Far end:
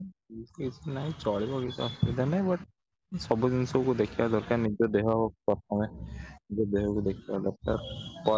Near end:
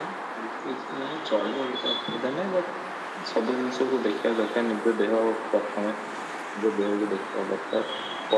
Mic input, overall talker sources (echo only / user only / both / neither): echo only